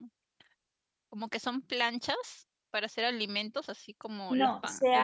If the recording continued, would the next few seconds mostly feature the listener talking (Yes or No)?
Yes